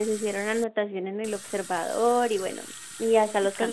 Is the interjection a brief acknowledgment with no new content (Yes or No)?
Yes